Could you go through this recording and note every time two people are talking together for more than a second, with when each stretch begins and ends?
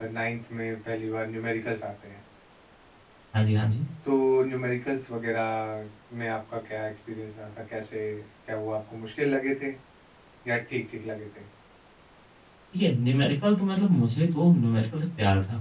none

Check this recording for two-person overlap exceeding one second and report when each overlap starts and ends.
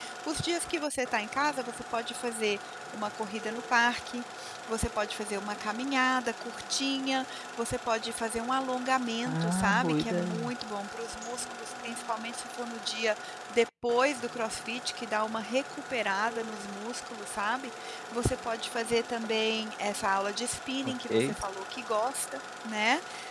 9.3-10.5

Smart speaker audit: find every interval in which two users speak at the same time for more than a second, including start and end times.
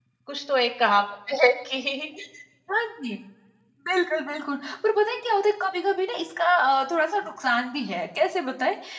none

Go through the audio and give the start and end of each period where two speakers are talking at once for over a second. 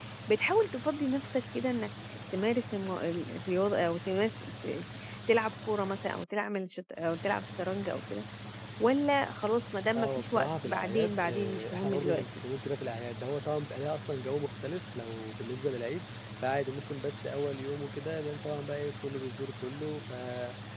9.9-12.2

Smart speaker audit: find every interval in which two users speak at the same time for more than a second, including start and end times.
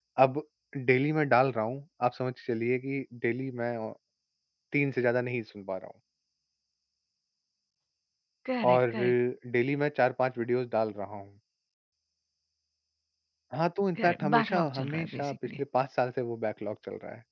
14.0-15.6

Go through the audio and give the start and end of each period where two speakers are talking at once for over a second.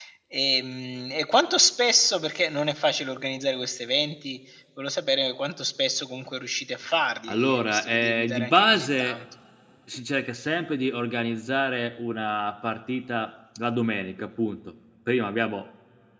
7.3-9.2

